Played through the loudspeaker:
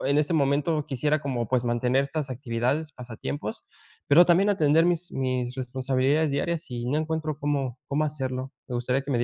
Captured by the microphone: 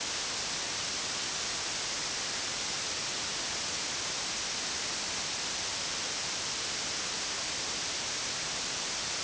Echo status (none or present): none